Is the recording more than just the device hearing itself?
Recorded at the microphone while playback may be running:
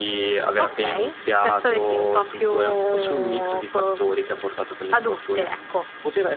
Yes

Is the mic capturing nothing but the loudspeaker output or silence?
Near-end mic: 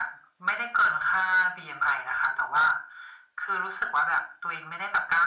Yes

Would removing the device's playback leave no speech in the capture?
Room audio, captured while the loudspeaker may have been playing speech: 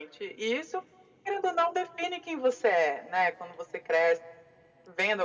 Yes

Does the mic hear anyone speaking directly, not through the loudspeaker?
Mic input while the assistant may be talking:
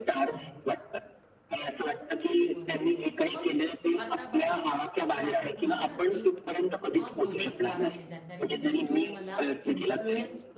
Yes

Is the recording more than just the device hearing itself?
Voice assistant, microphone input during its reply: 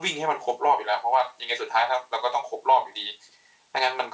No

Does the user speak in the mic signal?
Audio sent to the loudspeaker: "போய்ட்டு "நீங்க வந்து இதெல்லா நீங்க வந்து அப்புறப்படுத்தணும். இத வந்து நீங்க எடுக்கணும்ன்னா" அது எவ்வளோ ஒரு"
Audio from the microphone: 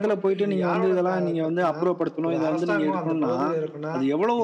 Yes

